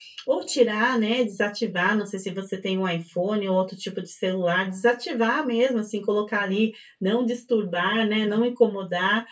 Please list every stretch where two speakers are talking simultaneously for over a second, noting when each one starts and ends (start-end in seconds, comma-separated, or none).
none